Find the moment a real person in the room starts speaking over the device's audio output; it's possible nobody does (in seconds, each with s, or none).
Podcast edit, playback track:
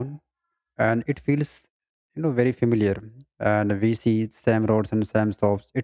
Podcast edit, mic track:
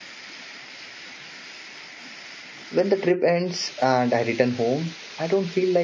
2.7 s